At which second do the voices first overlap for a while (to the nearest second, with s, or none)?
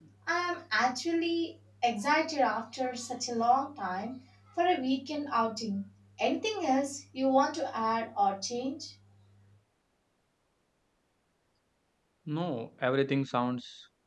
none